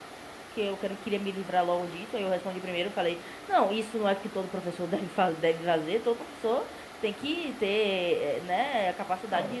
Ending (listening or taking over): taking over